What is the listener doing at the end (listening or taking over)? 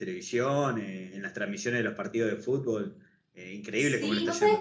taking over